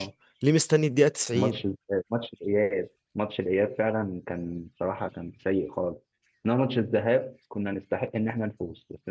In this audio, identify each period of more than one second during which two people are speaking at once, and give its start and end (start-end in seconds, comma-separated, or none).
none